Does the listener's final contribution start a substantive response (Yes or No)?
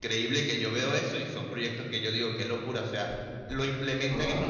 No